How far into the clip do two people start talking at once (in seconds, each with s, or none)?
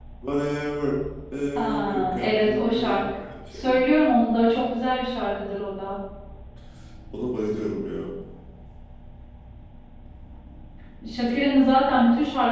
1.6 s